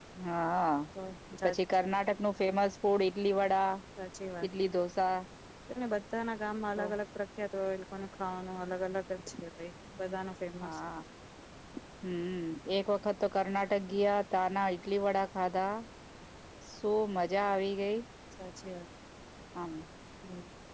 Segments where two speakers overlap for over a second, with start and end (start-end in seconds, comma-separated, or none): none